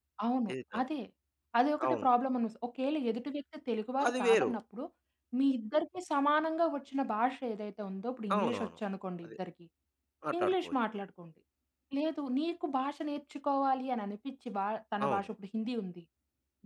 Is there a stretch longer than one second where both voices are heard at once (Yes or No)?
No